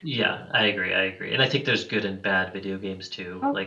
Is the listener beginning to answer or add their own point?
No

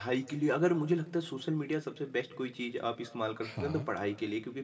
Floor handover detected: No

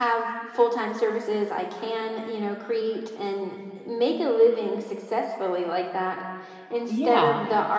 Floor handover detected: No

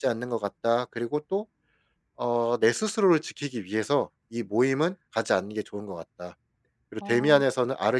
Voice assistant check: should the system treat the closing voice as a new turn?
No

